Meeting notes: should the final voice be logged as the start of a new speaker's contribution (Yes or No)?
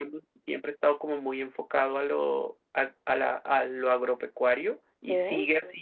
No